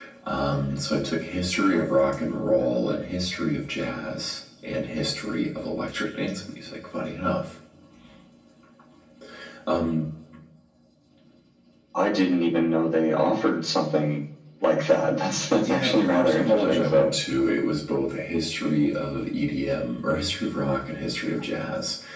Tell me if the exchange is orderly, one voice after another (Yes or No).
No